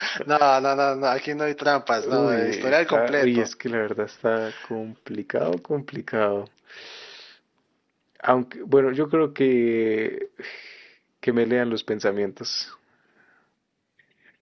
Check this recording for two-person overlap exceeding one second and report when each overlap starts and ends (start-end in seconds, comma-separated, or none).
2.1-3.5